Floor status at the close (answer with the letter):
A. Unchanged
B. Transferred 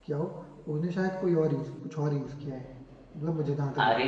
B